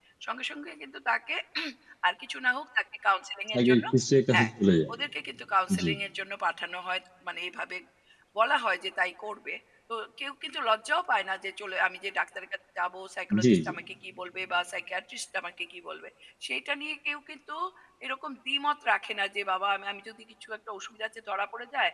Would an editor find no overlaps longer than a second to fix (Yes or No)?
Yes